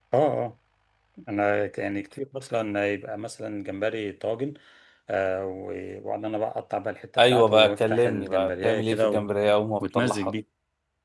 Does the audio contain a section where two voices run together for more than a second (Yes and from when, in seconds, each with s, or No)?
Yes, from 7.2 s